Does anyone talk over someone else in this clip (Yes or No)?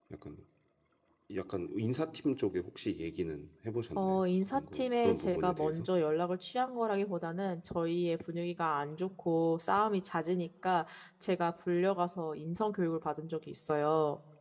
Yes